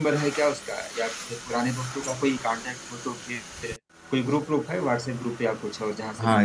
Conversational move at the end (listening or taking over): taking over